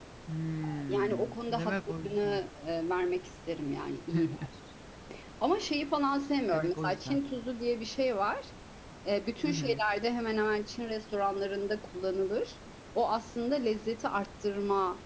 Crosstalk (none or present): present